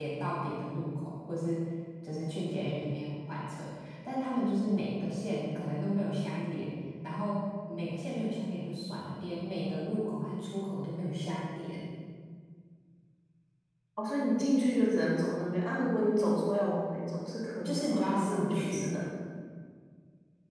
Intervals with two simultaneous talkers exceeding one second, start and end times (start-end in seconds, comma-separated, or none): 17.6-18.9